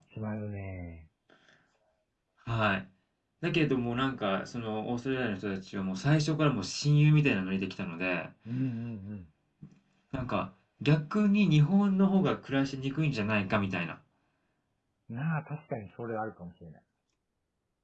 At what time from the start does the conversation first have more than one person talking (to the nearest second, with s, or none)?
none